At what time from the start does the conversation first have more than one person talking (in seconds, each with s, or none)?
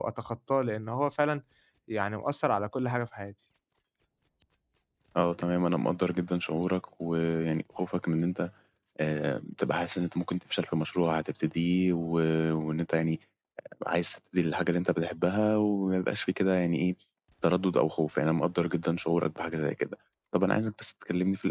none